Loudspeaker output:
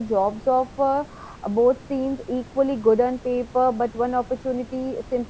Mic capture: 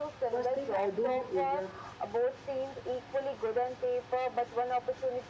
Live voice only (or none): First thing I do is uh,